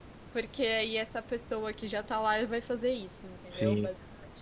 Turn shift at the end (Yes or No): Yes